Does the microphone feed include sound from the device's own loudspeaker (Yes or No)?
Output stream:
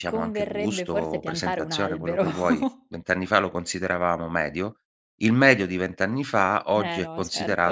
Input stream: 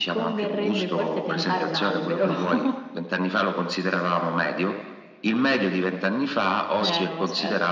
Yes